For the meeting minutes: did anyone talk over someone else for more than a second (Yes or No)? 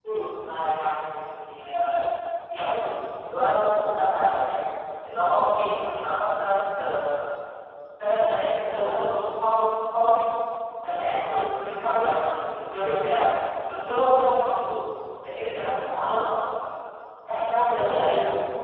No